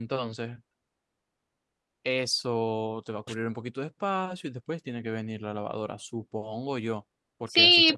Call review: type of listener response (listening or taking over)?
taking over